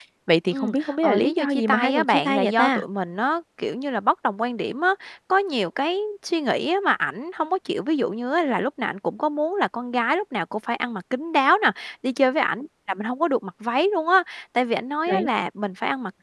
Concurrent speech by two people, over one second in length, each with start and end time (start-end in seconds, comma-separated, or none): 0.5-2.8